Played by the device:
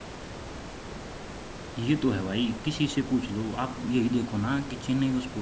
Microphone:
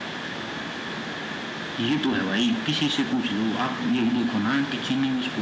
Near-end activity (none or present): none